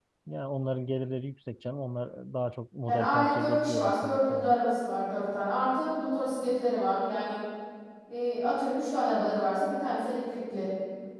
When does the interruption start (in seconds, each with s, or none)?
2.8 s